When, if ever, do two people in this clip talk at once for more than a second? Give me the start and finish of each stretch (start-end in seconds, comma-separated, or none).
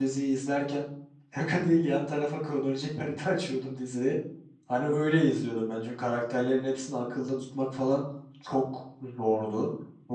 none